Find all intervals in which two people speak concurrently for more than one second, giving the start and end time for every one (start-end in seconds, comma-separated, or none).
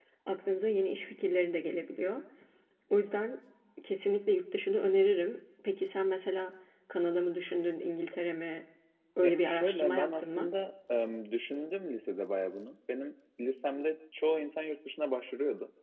9.2-10.5